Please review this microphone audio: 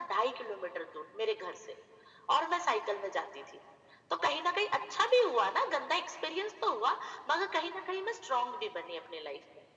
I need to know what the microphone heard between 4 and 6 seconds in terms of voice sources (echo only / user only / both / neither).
echo only